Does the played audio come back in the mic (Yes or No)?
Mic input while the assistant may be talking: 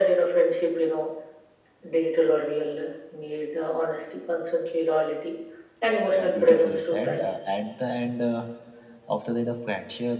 Yes